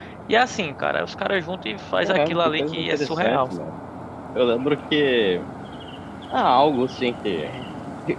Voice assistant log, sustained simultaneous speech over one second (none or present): present